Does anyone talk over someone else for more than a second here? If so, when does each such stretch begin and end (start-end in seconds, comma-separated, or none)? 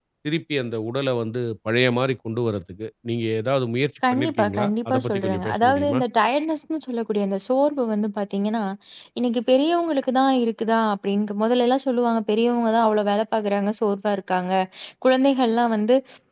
4.1-6.0